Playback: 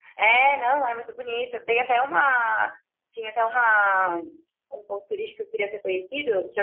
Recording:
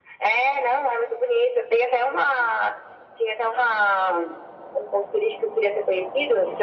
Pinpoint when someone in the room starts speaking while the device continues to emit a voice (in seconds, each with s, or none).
none